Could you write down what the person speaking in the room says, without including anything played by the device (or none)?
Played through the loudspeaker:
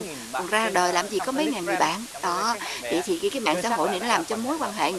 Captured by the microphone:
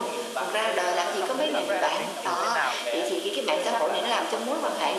ờ, ờ, không biết là người ta tính tình thế nào,